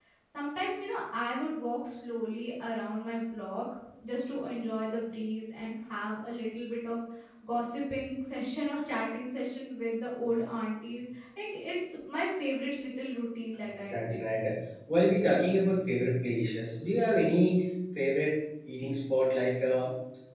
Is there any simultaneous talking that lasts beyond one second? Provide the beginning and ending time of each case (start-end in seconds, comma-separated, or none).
none